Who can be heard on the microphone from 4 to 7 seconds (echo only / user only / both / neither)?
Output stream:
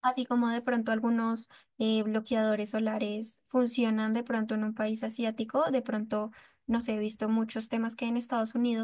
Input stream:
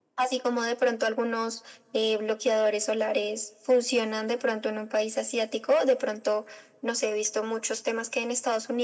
echo only